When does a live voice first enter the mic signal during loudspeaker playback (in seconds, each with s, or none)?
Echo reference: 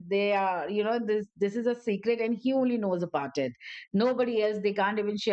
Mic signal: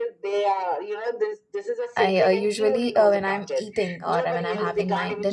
1.9 s